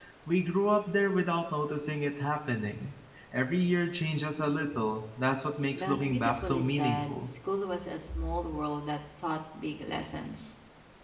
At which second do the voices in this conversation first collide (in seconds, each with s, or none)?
5.8 s